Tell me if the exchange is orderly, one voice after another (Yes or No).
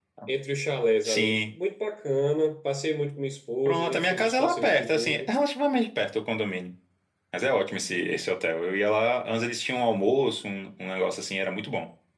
No